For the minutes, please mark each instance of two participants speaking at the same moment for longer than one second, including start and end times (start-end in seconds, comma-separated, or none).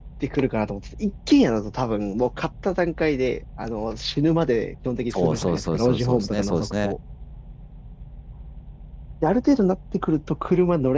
5.1-7.0